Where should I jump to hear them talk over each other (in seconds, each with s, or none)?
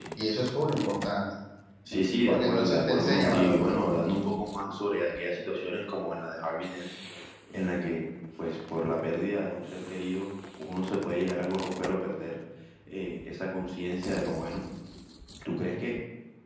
2.3 s